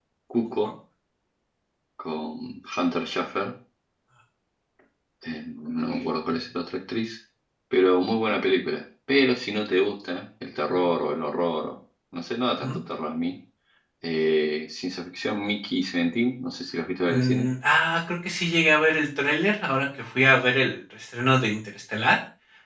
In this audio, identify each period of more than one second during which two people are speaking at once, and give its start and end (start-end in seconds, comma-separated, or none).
none